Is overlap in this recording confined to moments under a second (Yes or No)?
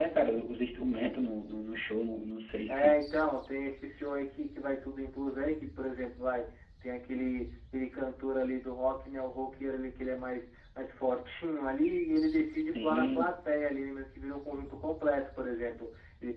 Yes